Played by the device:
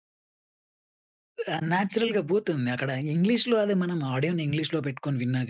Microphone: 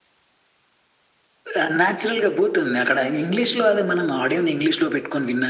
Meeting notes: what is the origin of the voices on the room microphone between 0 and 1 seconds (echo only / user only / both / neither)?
neither